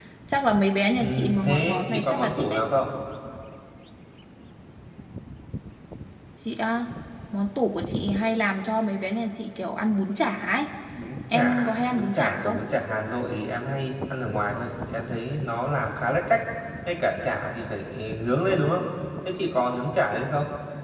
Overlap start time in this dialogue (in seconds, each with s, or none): 1.0 s